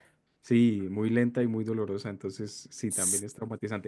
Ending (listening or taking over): listening